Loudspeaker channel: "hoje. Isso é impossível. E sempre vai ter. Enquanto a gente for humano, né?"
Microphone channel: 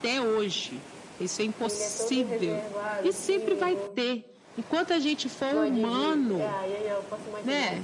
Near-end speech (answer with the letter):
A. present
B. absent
A